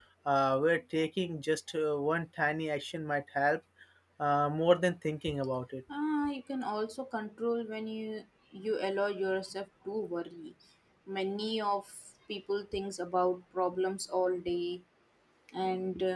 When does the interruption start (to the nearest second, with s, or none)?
none